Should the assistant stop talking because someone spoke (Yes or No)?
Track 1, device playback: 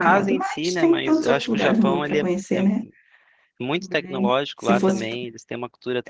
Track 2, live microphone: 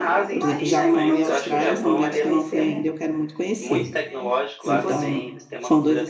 Yes